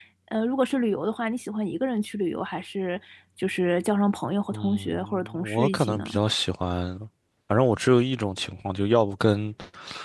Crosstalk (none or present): present